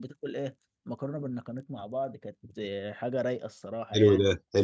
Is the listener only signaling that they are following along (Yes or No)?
No